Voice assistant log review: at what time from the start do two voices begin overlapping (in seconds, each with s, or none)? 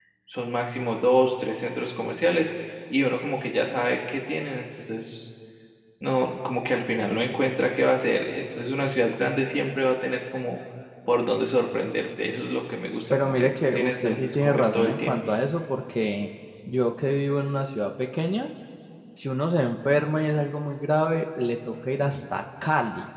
13.1 s